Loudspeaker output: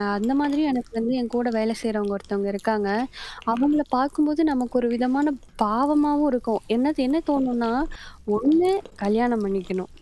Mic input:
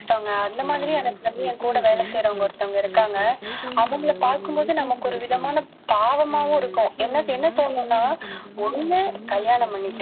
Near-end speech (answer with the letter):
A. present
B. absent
A